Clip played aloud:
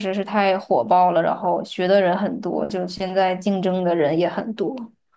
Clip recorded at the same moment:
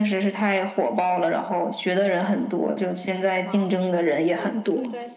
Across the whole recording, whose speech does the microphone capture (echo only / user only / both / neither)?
both